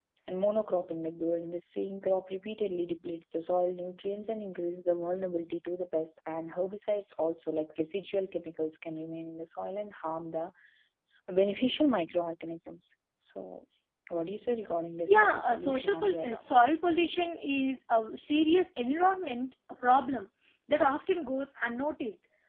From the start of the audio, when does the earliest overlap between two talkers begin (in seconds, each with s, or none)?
15.1 s